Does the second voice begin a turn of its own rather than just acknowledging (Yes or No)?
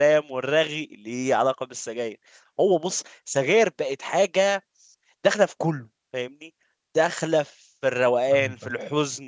No